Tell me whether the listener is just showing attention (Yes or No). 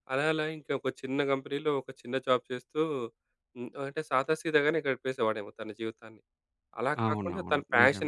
Yes